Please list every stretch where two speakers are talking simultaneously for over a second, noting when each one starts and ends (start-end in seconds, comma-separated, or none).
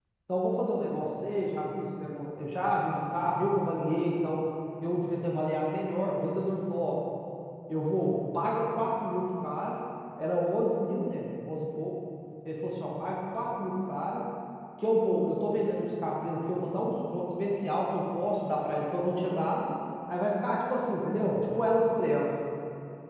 none